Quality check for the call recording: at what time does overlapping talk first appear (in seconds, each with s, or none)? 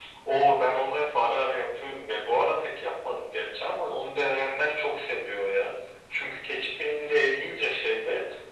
none